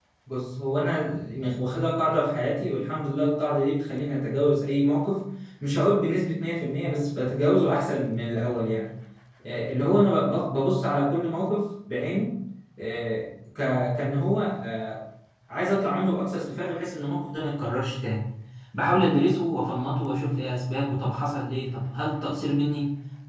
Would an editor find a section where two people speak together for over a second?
No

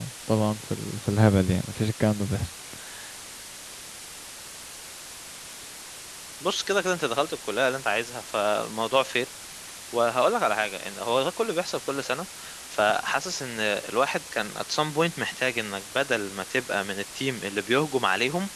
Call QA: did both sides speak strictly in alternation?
Yes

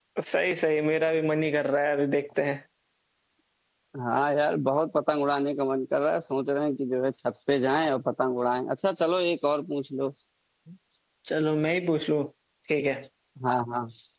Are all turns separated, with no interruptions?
Yes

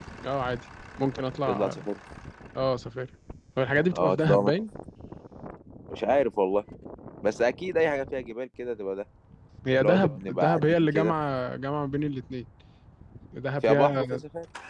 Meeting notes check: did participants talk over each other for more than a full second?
Yes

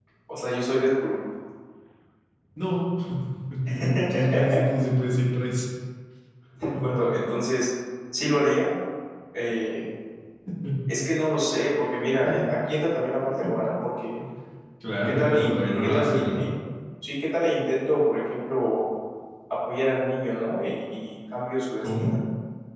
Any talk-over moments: Yes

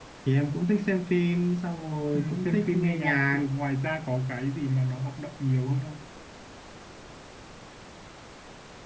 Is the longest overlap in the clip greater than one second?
Yes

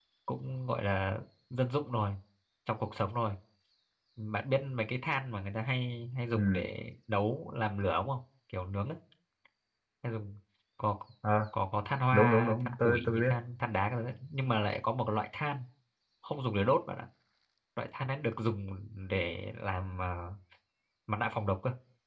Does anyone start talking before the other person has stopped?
Yes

